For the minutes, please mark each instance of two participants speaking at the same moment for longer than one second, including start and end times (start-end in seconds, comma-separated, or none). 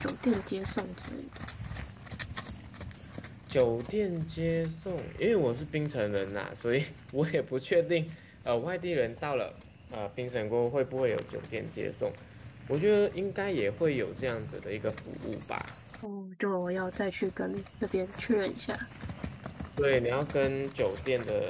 none